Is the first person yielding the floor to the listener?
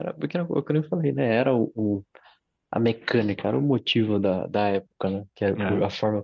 No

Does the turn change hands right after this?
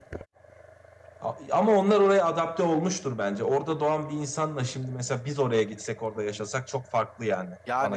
Yes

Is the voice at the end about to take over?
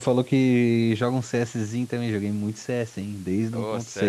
Yes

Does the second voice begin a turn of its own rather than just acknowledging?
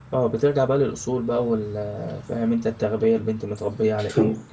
Yes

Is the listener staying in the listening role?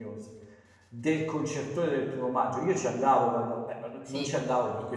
Yes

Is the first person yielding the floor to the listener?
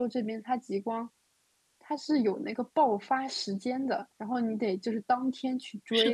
Yes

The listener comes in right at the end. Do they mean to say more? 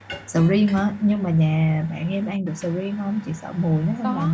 Yes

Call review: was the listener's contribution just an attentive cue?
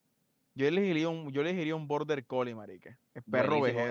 No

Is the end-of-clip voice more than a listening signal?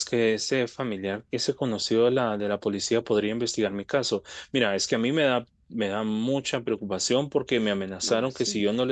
No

